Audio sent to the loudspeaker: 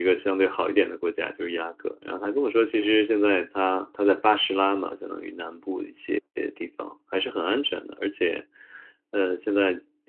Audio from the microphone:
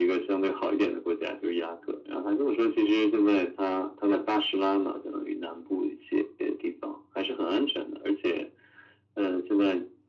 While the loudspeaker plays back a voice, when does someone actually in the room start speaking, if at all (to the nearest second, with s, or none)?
none